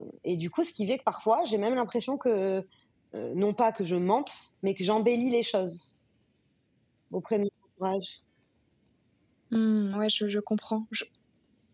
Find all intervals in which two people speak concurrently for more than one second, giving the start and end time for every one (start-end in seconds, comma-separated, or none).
none